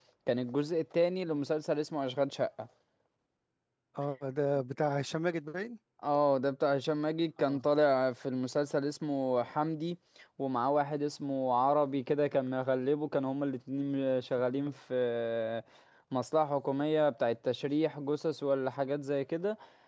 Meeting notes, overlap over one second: none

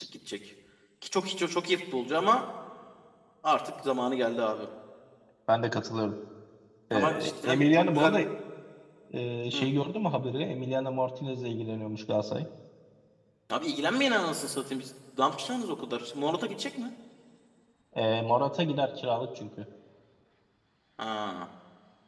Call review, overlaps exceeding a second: present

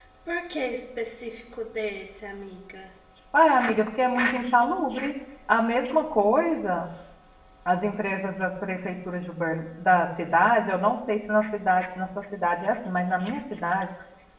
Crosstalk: none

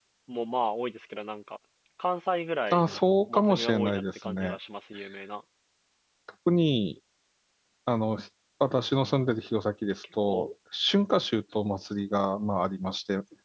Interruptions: present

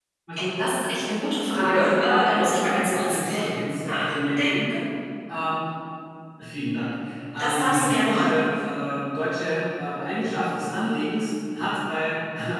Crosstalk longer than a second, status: present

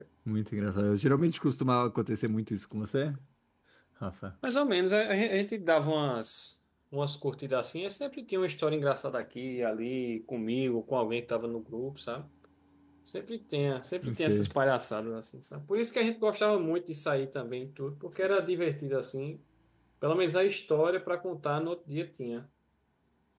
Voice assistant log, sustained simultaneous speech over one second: none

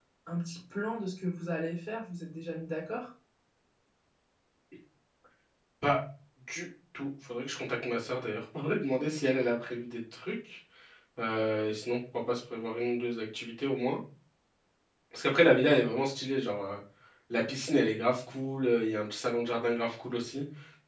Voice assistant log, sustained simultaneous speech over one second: none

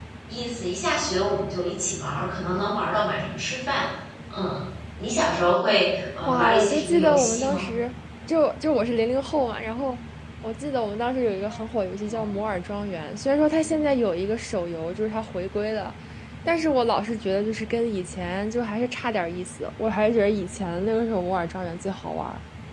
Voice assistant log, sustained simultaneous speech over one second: present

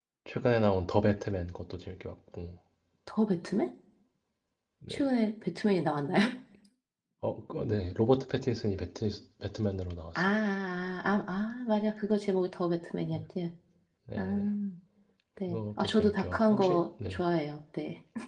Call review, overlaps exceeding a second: present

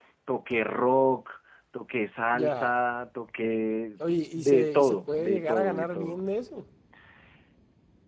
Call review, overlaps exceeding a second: present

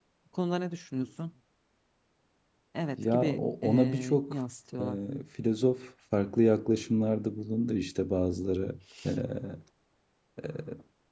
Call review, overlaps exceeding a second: present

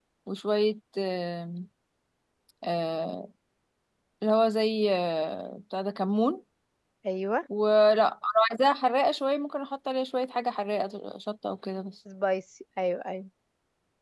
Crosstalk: none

